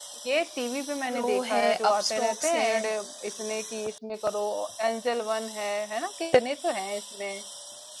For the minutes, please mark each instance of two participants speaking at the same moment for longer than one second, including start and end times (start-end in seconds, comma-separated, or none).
1.1-2.7